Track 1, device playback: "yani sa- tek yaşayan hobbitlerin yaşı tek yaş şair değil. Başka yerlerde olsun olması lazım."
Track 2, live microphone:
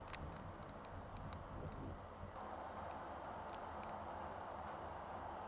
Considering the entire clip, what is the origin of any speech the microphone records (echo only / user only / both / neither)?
neither